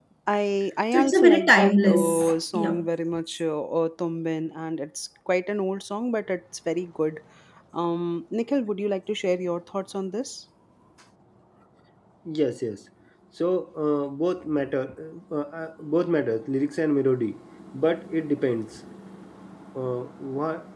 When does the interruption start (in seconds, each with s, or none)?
0.9 s